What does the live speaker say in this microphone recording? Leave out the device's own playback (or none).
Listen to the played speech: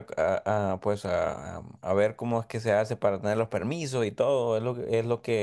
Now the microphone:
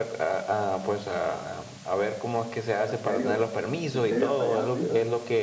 En serio, en serio, hasta allá, a Suiza.